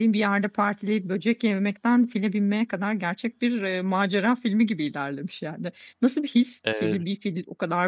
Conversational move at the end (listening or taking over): listening